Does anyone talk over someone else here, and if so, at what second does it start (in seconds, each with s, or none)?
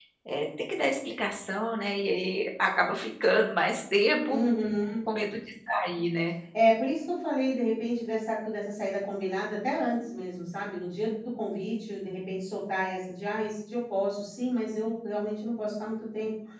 none